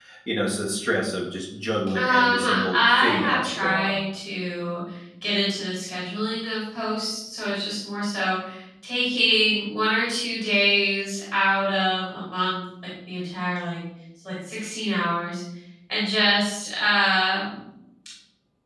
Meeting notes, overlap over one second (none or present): present